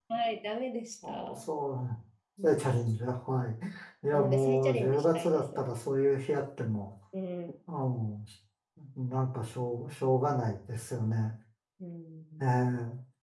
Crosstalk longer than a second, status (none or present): present